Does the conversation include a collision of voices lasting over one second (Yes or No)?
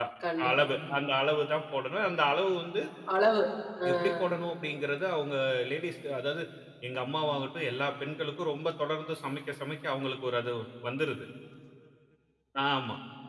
No